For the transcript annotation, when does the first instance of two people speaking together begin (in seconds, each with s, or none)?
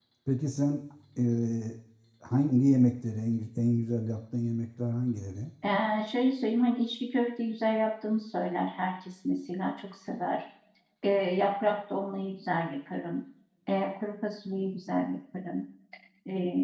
none